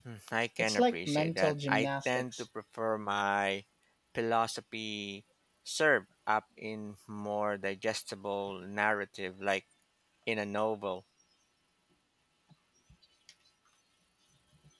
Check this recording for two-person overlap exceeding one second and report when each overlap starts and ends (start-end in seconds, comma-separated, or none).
0.6-2.4